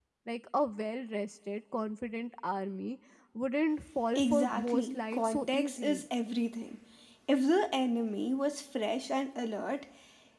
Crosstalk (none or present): present